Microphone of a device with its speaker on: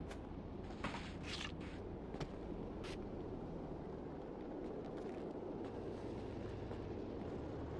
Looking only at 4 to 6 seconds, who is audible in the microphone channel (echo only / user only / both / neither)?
neither